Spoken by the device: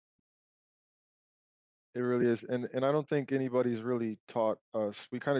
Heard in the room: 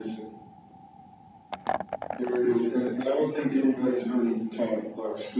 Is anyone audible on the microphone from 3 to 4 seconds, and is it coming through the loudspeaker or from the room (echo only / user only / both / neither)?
echo only